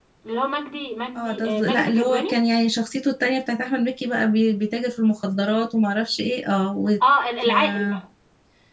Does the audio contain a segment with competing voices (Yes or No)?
Yes